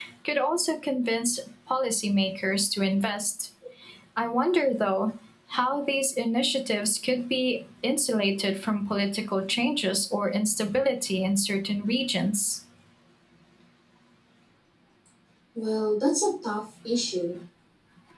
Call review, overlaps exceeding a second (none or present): none